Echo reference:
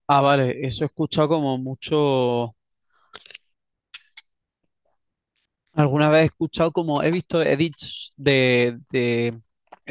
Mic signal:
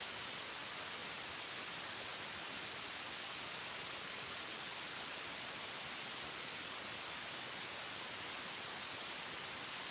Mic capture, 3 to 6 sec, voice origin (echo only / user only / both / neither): neither